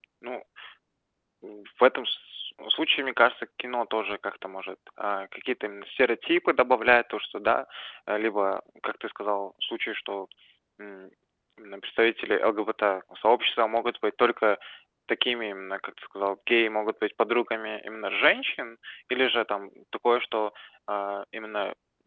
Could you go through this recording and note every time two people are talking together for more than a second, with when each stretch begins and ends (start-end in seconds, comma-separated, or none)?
none